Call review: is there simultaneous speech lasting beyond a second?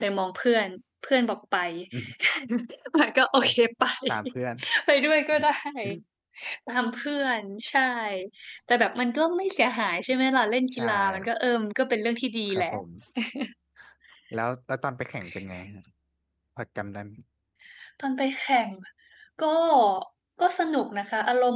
No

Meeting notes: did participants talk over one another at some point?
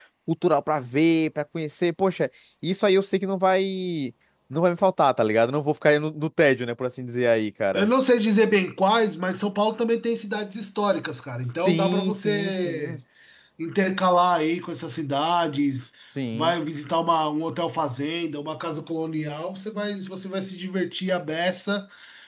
Yes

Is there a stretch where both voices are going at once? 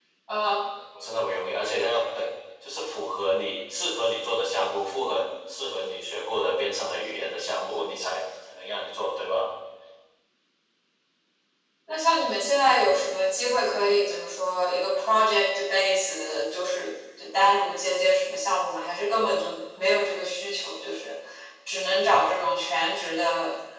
No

